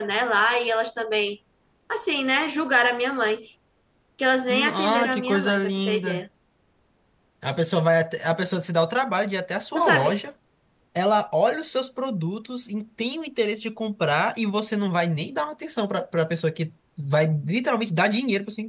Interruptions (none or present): present